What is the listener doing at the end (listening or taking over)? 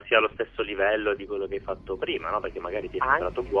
listening